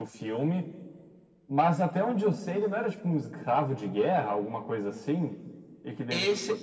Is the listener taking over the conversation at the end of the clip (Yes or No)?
Yes